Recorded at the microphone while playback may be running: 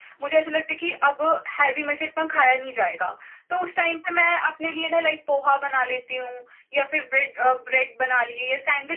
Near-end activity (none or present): none